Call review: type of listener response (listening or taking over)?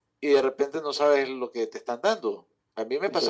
listening